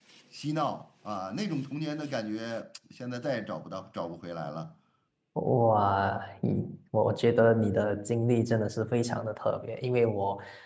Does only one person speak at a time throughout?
Yes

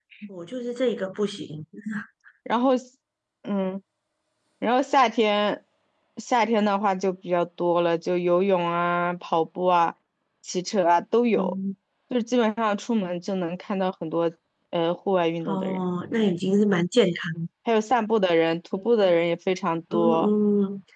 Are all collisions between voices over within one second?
Yes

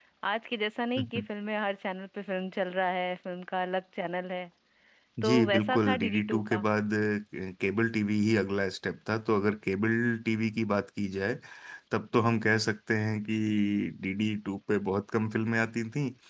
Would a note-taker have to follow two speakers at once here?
Yes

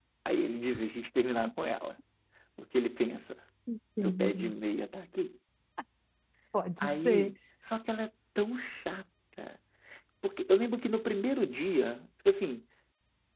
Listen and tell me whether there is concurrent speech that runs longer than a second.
No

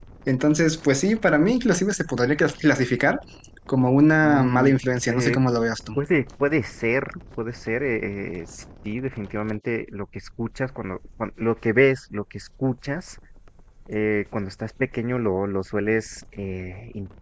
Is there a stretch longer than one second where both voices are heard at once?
No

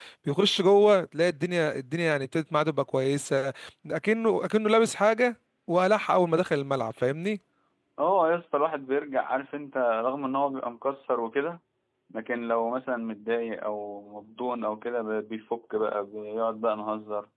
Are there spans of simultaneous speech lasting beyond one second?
No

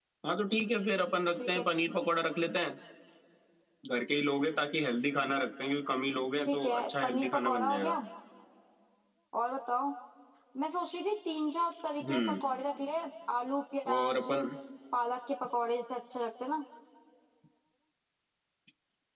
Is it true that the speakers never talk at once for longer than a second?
No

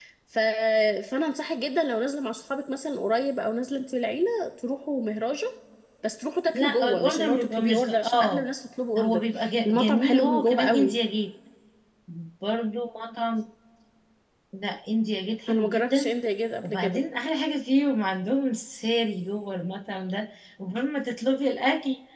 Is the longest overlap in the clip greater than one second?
Yes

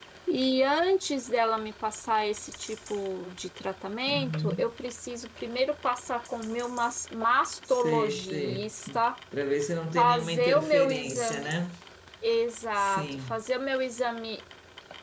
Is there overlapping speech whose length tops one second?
Yes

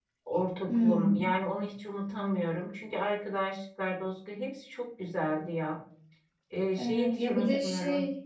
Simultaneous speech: Yes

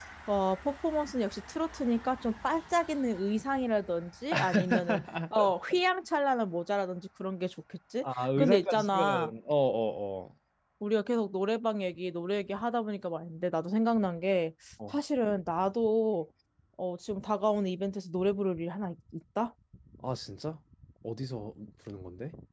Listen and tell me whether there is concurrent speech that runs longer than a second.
Yes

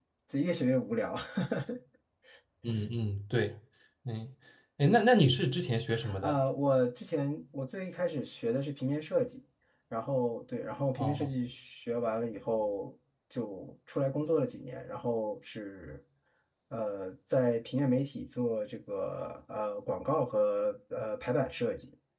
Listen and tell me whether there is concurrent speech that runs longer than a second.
No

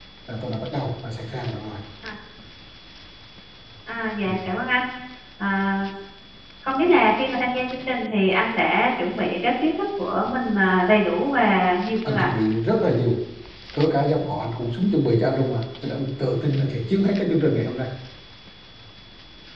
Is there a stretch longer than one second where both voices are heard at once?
No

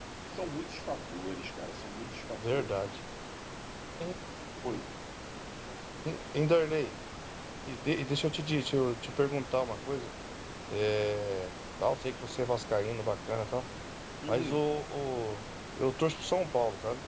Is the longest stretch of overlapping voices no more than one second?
Yes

